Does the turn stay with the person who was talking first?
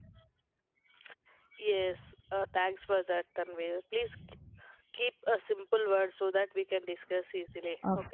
No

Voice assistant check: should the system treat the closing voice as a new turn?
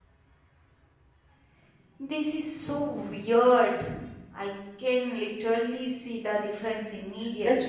Yes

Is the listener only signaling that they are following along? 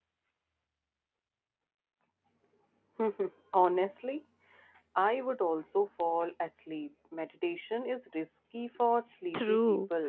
No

